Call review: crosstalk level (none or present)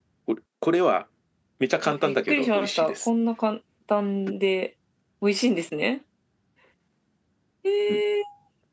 present